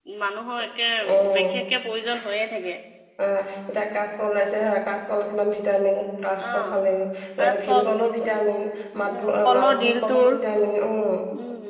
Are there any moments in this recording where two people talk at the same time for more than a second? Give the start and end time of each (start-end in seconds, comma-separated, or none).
9.1-10.3